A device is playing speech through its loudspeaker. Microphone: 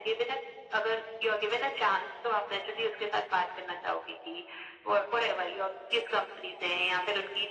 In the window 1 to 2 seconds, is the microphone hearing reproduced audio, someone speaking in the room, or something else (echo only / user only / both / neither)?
echo only